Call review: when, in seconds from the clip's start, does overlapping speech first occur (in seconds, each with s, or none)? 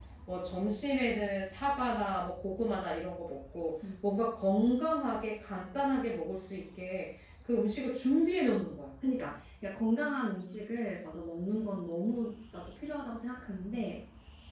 none